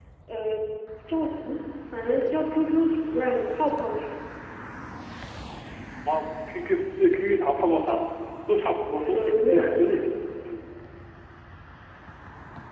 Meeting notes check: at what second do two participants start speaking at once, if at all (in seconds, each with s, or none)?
8.9 s